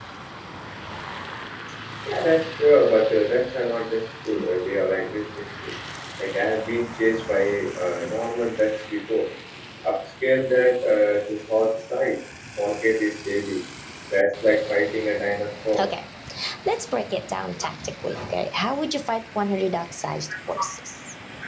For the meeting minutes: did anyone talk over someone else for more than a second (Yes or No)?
No